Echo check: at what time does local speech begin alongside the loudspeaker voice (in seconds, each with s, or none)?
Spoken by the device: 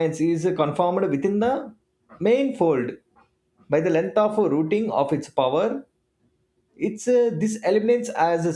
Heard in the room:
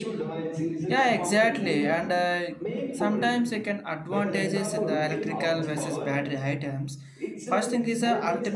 0.8 s